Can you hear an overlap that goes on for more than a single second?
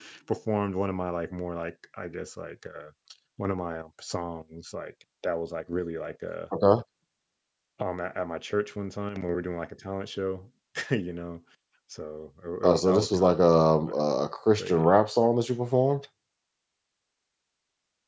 Yes, from 12.6 s

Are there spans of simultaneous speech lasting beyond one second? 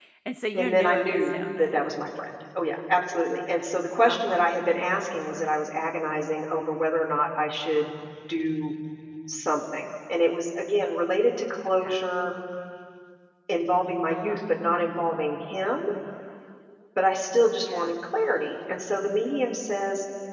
Yes, from 0.5 s

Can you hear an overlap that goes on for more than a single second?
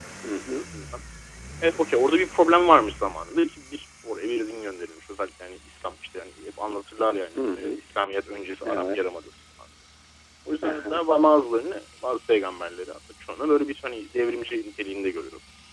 No

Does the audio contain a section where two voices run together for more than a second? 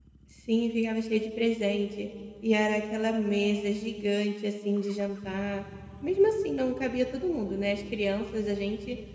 No

